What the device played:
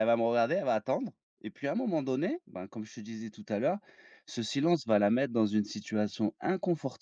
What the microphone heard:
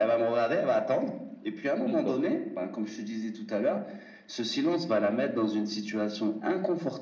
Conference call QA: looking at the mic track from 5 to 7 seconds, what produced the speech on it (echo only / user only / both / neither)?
echo only